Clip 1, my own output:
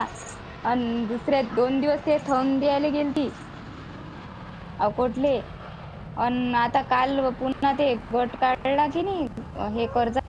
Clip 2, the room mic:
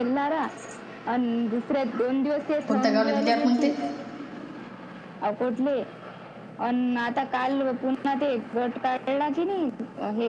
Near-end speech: present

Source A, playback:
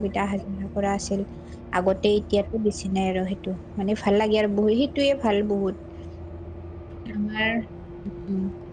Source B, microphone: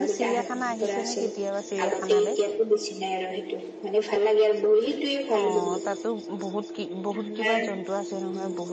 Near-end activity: present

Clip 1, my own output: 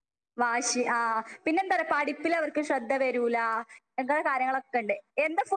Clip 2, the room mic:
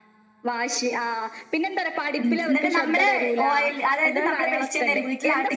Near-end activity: present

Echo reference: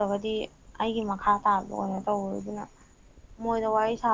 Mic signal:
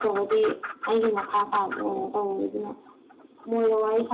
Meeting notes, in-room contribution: none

